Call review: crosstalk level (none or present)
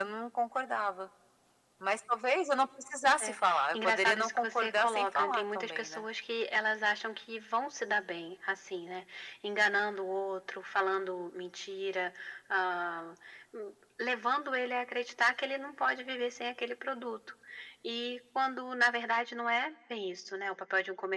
present